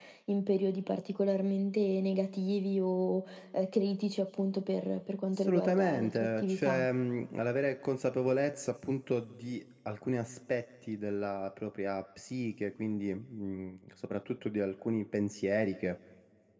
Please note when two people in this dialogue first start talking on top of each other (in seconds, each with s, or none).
5.3 s